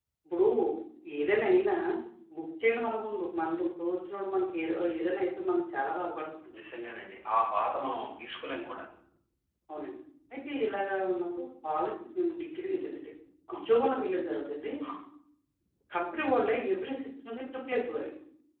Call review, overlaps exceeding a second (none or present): none